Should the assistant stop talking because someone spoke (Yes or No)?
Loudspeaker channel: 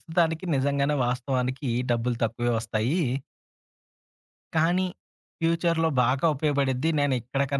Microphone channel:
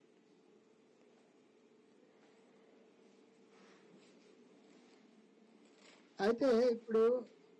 Yes